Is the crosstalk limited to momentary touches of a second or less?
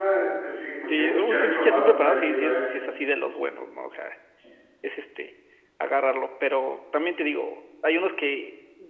No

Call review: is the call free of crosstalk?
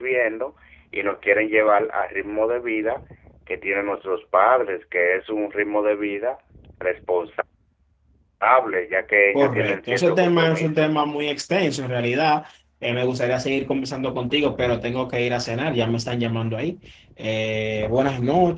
No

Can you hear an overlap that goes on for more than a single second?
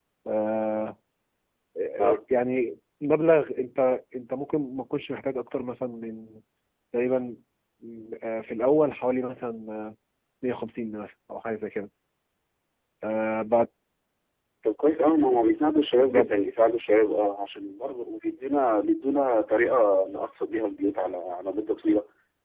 No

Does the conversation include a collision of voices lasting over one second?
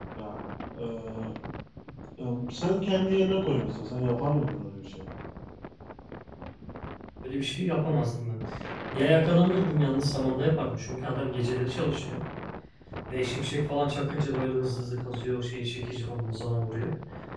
No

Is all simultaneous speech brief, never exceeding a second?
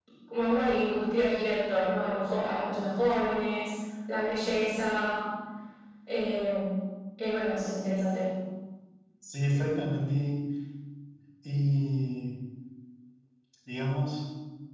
Yes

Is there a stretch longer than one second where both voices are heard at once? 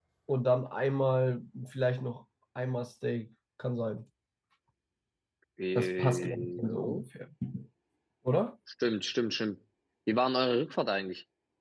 Yes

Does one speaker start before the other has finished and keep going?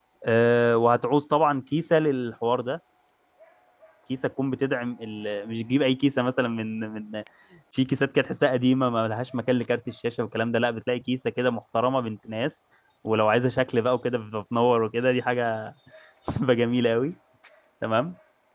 No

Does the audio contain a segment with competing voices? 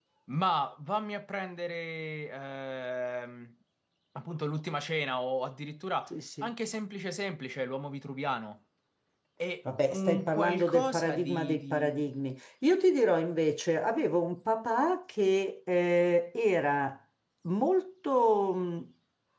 Yes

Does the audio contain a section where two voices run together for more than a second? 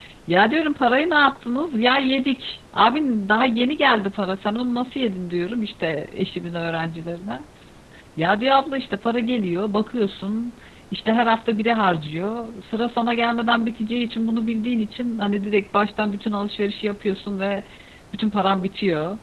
No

